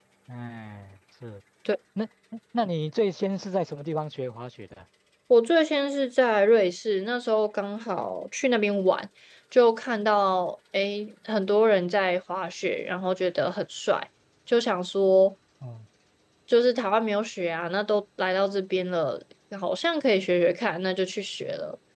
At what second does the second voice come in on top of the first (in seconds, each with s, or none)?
none